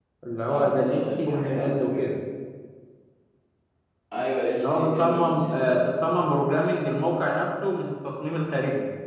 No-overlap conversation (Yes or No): No